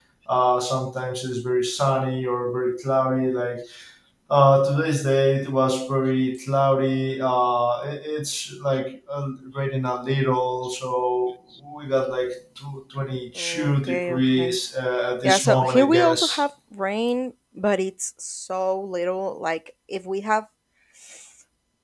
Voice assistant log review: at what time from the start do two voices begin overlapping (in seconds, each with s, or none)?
13.3 s